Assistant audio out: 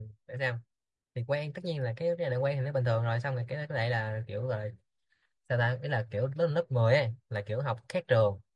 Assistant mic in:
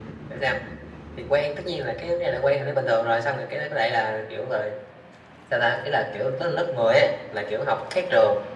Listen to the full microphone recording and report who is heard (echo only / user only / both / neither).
echo only